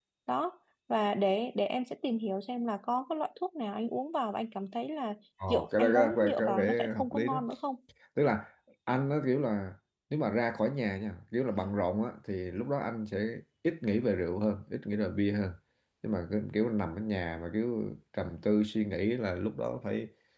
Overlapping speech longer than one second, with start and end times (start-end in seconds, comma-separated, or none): 5.5-7.4